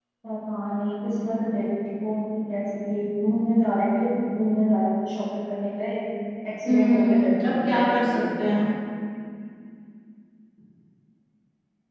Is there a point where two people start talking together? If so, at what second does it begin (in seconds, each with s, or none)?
6.7 s